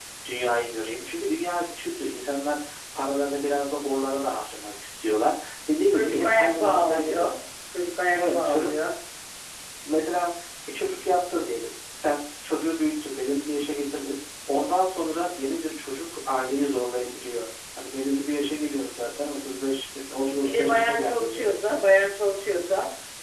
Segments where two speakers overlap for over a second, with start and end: 5.9-7.3, 20.4-21.6

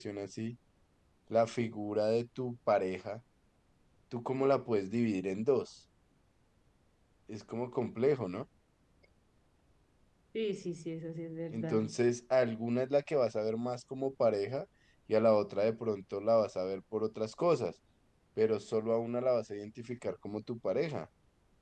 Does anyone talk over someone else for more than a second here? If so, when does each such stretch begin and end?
none

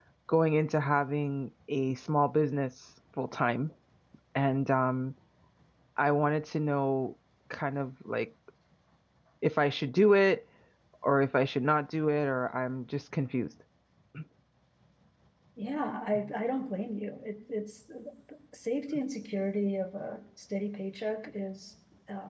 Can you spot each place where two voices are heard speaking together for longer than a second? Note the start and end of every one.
none

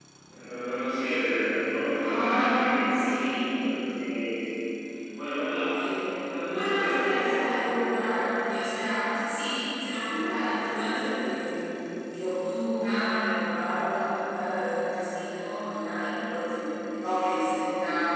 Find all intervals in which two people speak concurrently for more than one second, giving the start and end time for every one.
2.0-3.5, 6.3-7.5

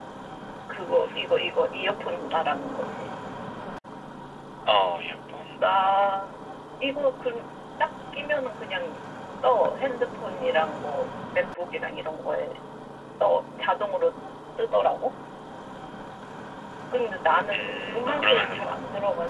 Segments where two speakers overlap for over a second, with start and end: 17.5-18.8

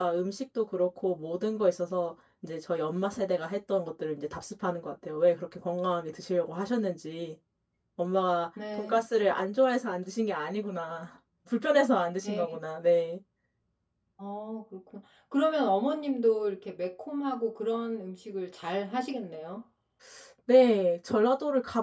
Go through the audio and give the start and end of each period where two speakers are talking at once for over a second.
none

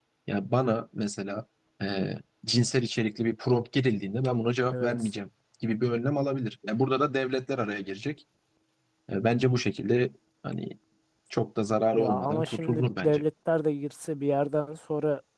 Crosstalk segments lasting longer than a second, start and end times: 12.0-13.2

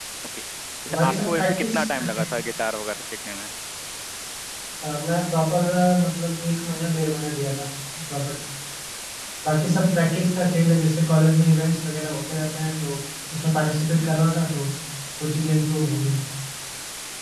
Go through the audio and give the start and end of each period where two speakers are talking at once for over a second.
0.9-2.2

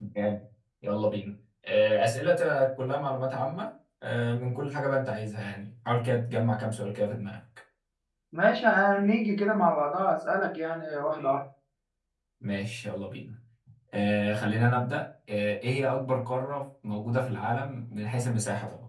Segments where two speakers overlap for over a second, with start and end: none

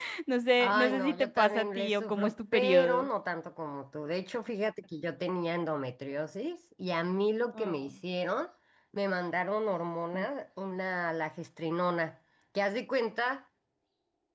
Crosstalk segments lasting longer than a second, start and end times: 0.6-3.1

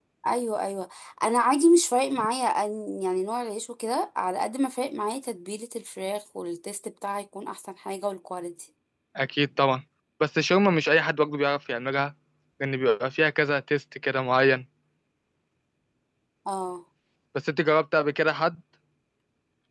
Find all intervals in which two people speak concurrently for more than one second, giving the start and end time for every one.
none

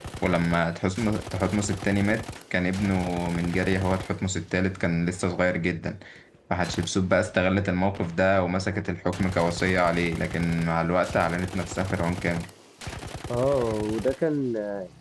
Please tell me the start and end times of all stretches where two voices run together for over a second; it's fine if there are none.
none

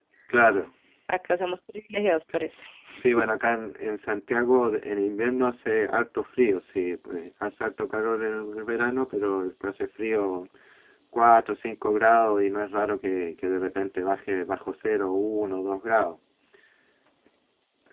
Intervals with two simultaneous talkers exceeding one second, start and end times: none

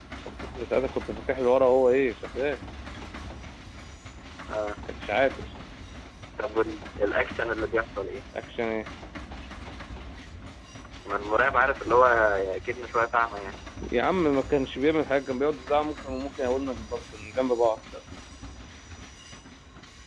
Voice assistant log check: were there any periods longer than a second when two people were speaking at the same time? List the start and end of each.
none

